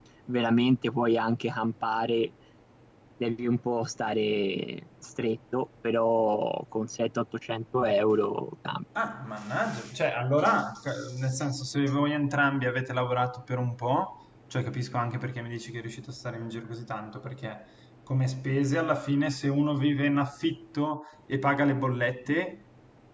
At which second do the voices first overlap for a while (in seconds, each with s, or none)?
none